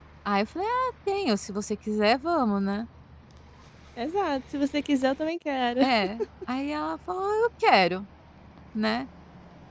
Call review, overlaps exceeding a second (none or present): none